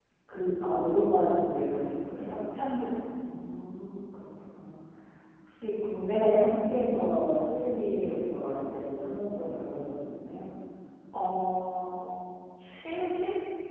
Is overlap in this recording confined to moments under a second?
Yes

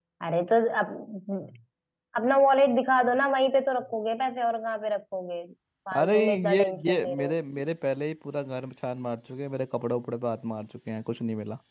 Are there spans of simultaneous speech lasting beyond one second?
Yes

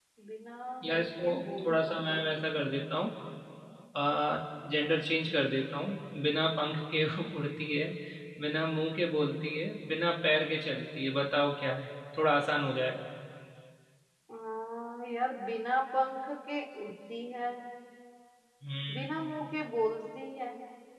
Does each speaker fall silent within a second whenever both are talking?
No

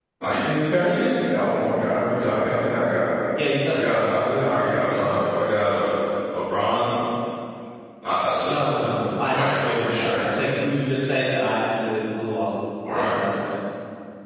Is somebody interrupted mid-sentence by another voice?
Yes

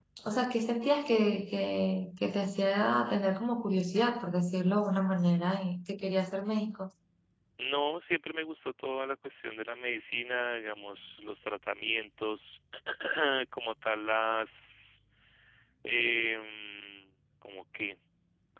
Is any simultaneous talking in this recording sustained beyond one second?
No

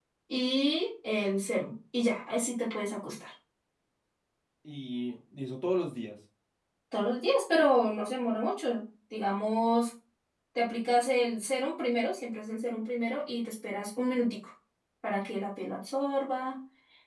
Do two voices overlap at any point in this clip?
No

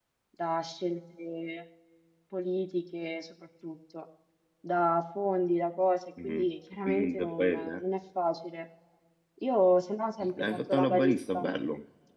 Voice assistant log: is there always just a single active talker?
No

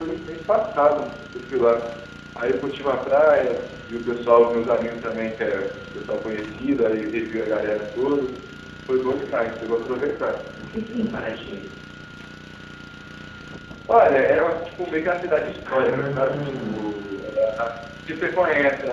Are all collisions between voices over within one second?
No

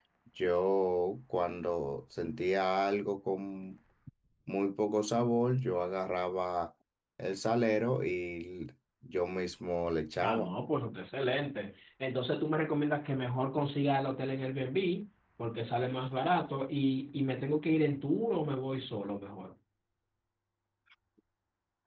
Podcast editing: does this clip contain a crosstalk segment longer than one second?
No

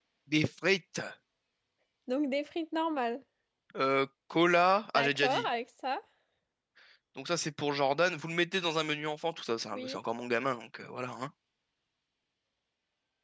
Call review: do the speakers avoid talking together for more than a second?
Yes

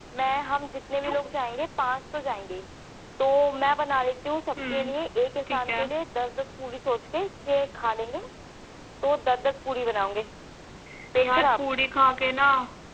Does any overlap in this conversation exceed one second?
No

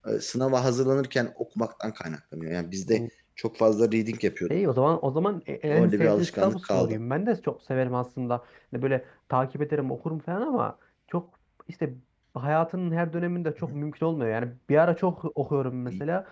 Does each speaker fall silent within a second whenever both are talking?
No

